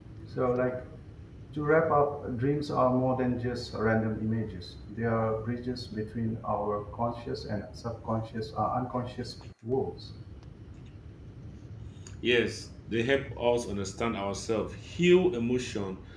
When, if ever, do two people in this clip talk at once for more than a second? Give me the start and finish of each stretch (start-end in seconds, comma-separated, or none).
none